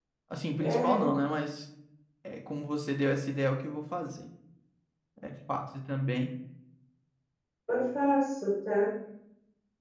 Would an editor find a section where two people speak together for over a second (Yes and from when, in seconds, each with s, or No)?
No